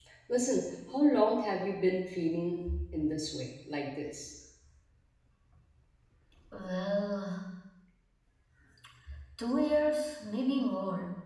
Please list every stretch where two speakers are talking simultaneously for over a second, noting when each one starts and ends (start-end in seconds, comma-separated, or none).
none